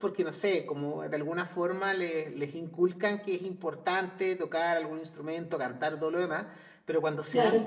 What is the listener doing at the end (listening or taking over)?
listening